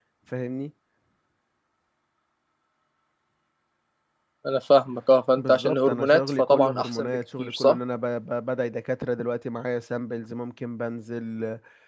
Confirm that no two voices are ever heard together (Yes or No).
No